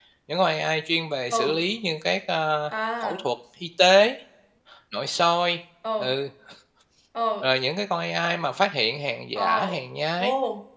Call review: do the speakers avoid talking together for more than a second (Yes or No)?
Yes